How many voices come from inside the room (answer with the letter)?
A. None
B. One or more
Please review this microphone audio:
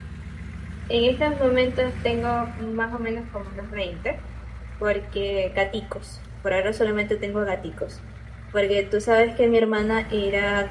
B